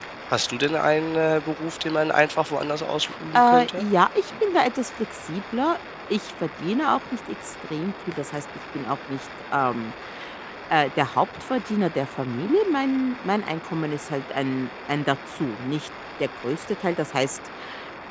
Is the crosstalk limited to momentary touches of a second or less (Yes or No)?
Yes